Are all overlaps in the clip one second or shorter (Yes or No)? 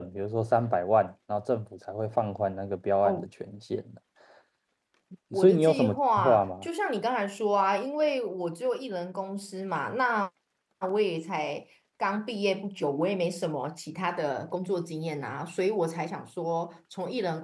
No